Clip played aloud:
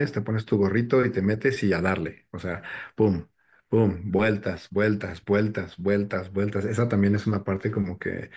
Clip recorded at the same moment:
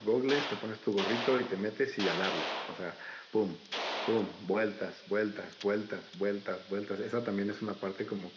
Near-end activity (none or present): none